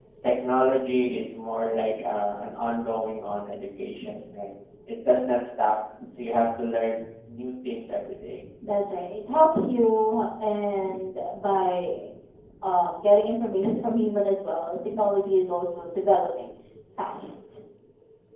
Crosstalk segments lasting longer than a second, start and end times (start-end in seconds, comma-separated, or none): none